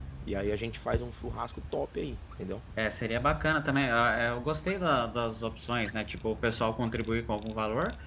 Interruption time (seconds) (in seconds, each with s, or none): none